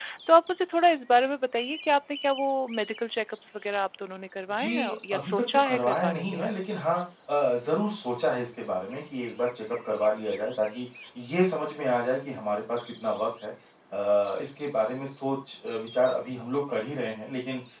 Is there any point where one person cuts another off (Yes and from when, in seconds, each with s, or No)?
Yes, from 4.6 s